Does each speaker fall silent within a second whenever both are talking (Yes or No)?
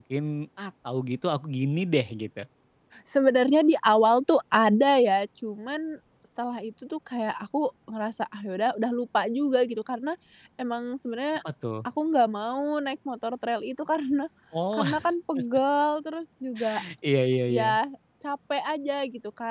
Yes